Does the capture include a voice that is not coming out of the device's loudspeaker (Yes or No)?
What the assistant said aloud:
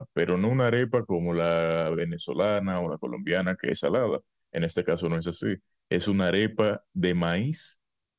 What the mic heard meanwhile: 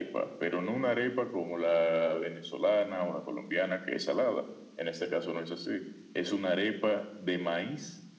No